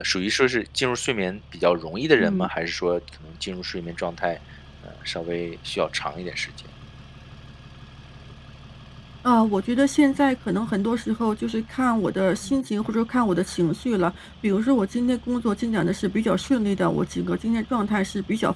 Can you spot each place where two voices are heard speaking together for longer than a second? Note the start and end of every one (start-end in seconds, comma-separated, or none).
none